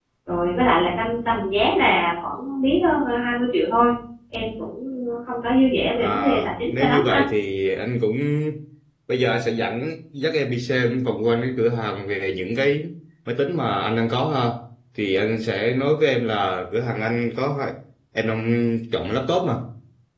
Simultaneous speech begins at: 6.0 s

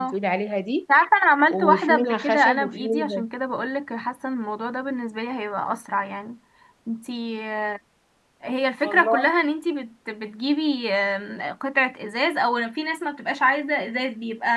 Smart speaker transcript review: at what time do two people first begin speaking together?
1.5 s

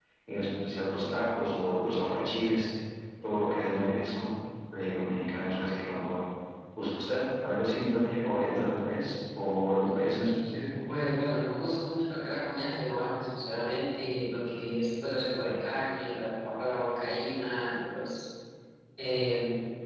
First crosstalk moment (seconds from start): none

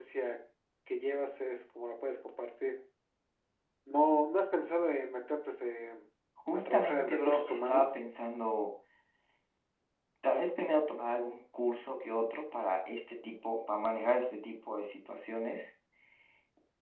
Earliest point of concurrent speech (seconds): 6.5 s

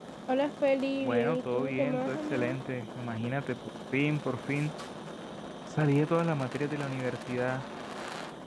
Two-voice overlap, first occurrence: 1.0 s

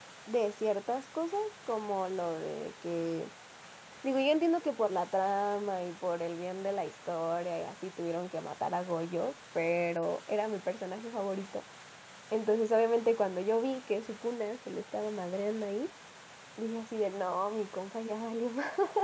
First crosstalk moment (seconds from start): none

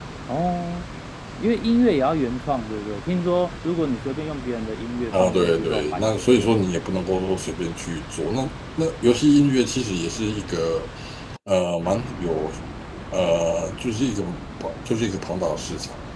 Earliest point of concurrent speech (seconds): 5.1 s

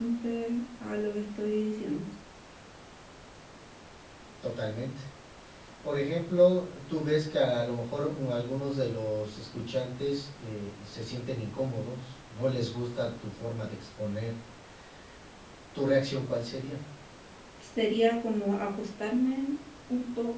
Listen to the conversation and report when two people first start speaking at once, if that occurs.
none

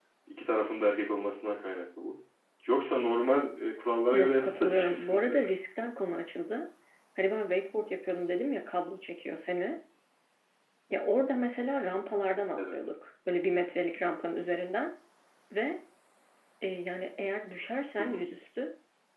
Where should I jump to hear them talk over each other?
4.1 s

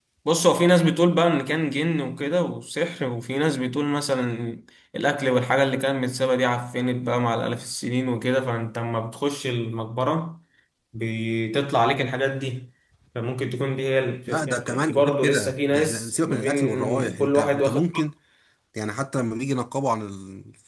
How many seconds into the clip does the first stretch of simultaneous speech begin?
14.3 s

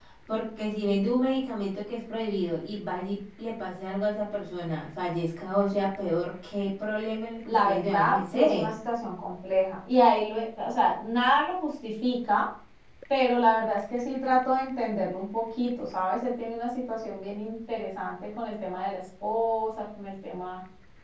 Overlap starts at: 7.5 s

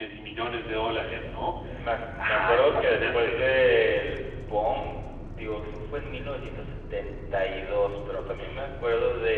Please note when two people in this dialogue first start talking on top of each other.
2.2 s

